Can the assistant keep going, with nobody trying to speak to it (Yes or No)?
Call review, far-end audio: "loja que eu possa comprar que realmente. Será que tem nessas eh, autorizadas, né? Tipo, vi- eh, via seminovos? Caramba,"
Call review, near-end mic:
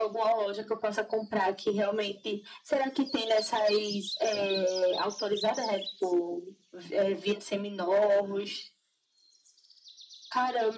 Yes